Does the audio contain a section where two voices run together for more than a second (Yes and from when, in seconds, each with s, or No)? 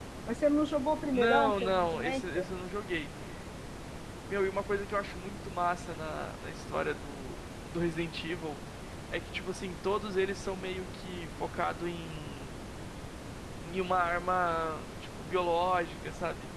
Yes, from 1.1 s